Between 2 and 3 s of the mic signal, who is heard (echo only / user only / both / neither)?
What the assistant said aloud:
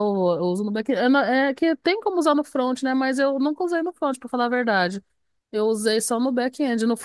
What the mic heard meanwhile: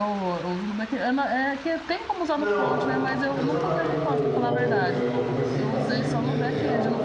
both